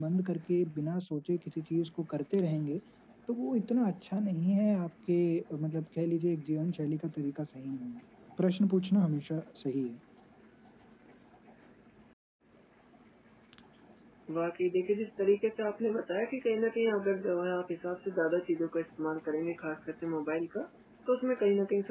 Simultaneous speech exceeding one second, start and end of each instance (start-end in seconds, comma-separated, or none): none